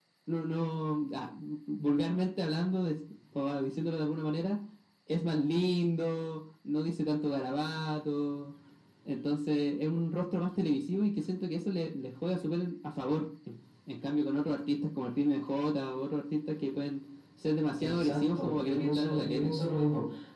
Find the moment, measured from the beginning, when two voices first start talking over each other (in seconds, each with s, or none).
17.8 s